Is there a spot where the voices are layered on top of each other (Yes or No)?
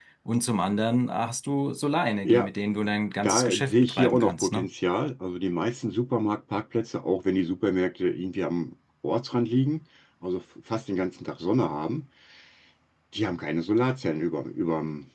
Yes